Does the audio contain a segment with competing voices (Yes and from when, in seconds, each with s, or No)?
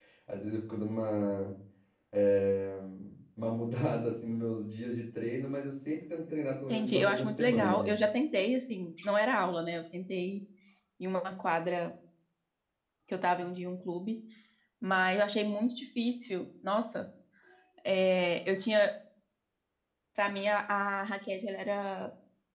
Yes, from 6.7 s